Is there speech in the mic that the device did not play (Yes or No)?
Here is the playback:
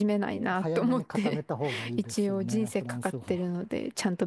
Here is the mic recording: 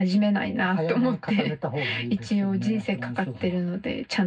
No